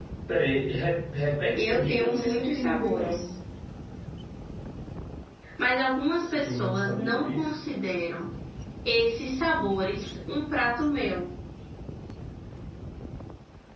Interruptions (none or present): present